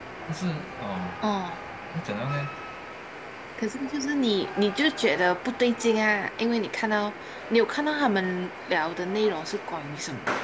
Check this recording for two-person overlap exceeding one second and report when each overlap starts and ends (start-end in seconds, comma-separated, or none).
none